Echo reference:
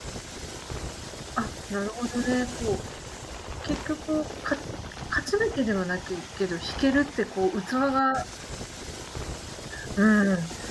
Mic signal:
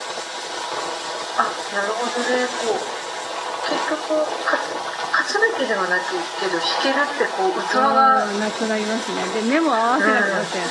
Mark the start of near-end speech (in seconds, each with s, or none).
7.7 s